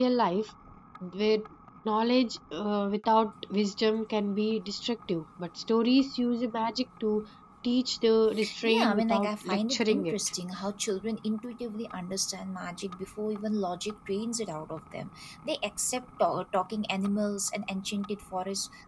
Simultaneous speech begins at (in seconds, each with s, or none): 8.6 s